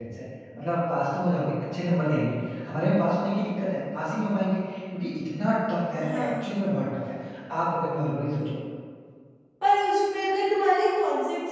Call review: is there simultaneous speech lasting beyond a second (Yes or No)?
No